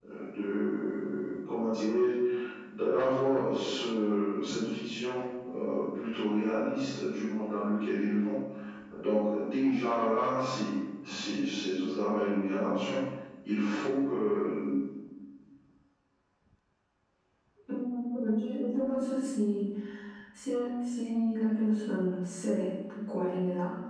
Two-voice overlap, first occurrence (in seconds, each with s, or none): none